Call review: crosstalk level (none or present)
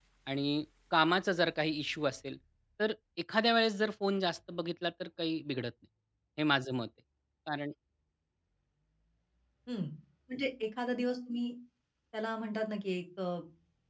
none